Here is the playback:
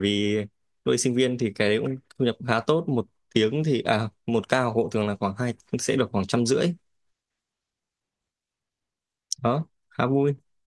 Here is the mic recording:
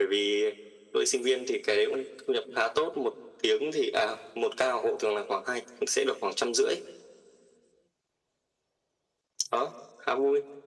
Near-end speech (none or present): none